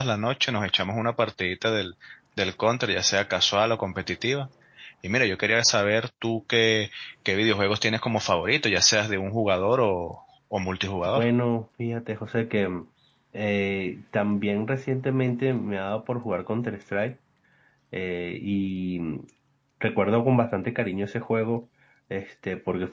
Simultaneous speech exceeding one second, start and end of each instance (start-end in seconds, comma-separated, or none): none